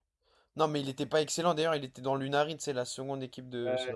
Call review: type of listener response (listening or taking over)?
taking over